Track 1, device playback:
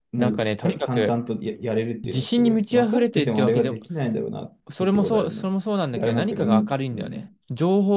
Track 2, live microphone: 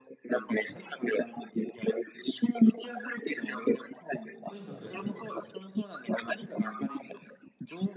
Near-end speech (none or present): present